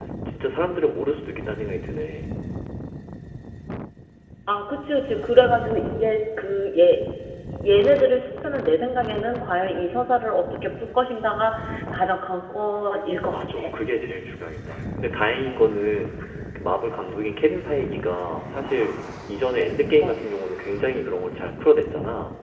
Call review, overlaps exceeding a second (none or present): none